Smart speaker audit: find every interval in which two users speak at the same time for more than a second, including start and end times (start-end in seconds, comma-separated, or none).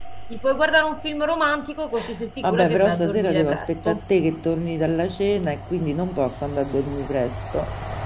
2.4-4.0